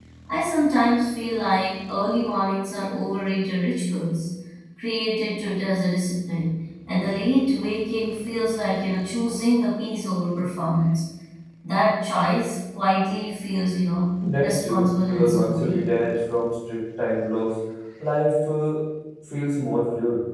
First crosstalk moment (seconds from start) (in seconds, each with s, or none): 14.2 s